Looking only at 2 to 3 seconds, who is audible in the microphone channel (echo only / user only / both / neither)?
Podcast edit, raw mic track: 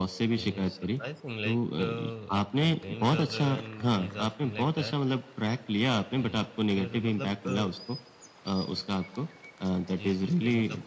both